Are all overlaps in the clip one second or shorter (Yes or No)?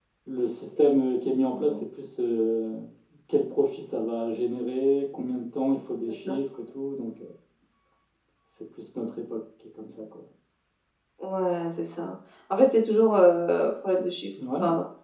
Yes